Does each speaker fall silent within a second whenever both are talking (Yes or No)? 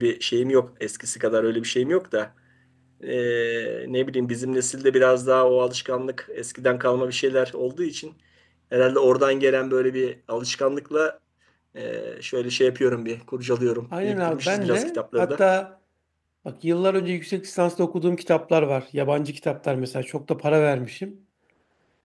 No